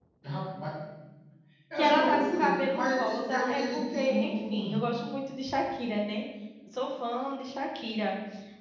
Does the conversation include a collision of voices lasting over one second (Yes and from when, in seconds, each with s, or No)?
Yes, from 1.8 s